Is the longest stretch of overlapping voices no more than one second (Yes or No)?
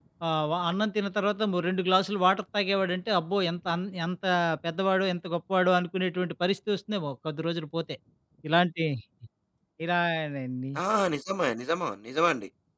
Yes